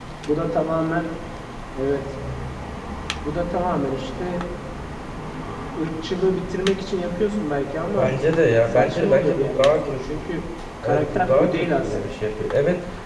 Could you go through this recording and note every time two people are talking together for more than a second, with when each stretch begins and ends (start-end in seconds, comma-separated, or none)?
8.7-10.2, 10.8-12.2